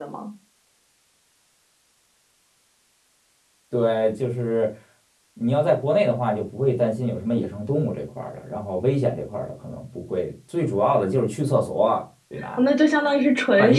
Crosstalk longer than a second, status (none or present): none